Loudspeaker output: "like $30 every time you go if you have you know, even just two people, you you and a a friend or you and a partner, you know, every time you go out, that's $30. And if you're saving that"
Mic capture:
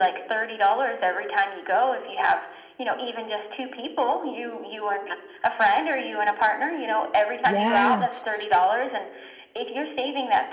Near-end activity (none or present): present